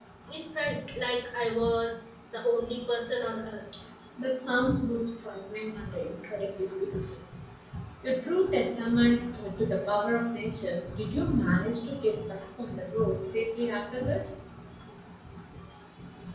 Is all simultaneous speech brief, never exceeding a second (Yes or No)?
Yes